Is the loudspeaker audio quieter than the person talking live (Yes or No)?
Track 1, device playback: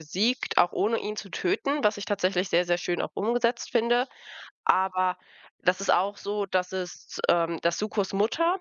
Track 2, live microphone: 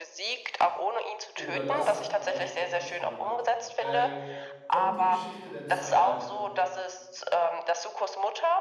No